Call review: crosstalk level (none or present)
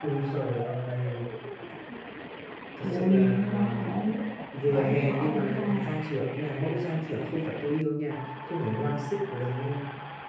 present